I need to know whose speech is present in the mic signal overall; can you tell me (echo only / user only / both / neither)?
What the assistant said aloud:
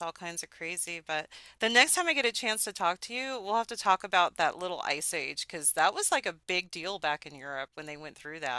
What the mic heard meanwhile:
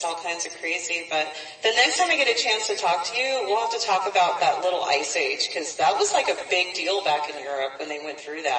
echo only